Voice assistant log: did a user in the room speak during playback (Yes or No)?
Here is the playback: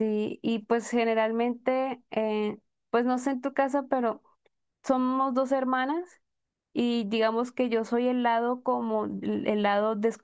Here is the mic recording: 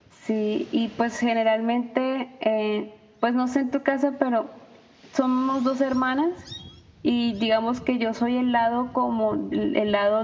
No